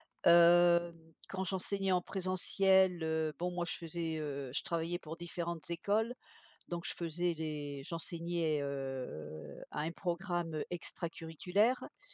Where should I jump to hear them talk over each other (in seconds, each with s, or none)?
none